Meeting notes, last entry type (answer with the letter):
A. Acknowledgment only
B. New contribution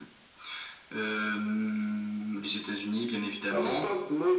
B